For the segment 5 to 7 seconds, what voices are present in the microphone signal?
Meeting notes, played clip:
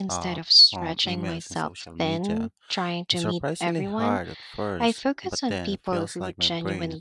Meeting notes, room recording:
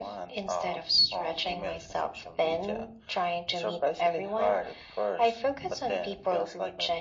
echo only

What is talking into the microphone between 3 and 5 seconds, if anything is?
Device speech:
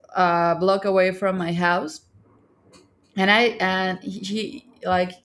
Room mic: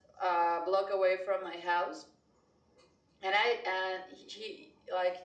echo only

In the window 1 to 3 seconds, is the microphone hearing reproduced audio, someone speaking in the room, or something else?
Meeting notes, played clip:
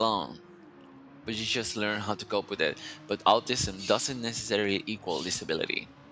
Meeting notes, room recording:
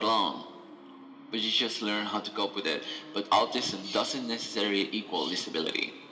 echo only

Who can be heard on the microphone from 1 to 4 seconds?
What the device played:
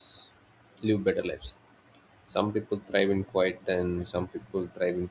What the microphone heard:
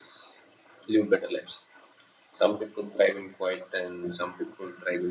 echo only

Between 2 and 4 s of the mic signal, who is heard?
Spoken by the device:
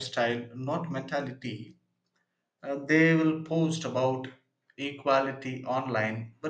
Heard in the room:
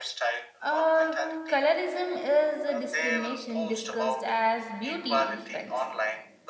both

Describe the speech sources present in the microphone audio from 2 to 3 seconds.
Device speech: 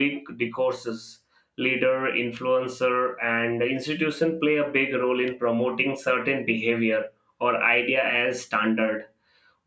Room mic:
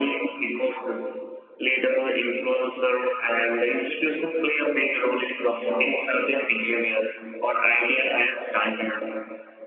echo only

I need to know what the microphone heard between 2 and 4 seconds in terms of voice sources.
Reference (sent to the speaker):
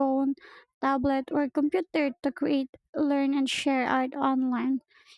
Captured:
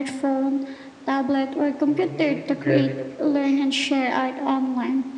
both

